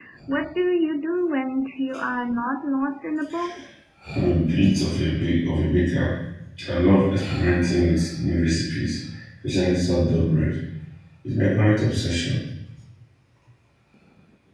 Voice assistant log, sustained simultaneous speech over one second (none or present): none